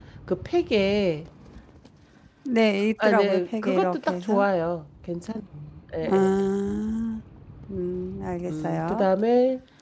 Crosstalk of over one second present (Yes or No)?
Yes